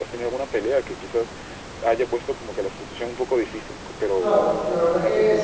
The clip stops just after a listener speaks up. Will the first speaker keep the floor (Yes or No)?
No